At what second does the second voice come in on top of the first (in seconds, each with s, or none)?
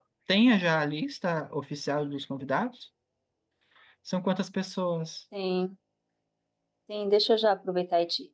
none